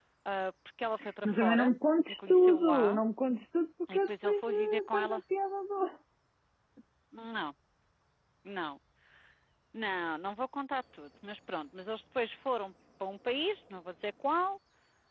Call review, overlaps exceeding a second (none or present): present